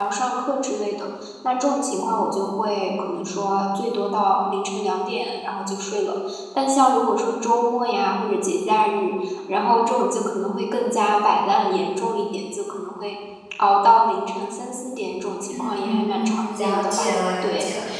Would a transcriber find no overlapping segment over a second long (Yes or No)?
No